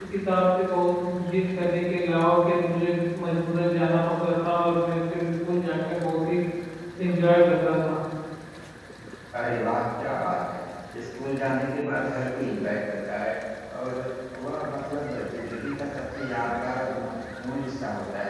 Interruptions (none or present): none